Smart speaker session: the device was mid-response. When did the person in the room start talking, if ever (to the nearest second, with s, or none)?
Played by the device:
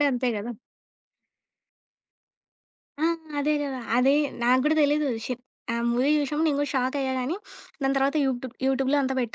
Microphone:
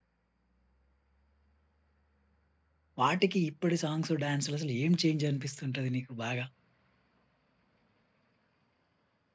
3 s